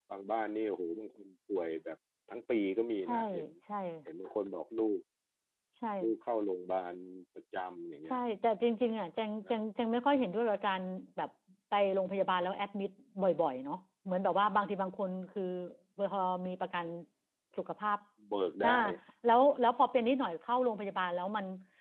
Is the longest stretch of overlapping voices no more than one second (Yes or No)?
Yes